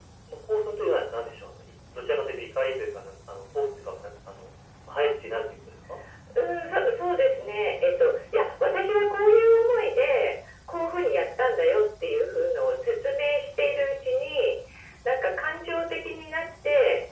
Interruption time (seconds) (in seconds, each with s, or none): none